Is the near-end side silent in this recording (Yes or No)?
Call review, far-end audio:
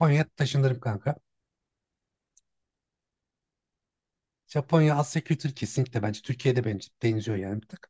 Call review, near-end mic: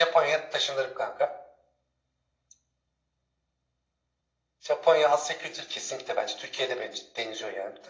Yes